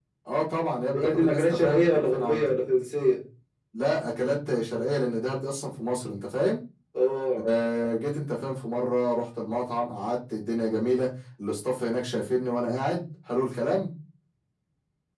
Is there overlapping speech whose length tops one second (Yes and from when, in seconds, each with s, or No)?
Yes, from 0.9 s